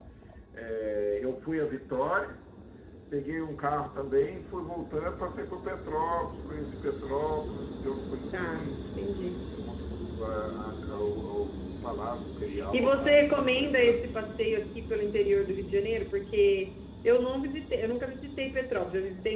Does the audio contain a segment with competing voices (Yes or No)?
Yes